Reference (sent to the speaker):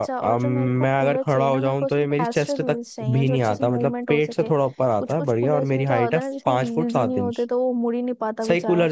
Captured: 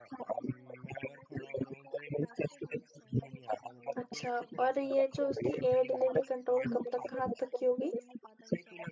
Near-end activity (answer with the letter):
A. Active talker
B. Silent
A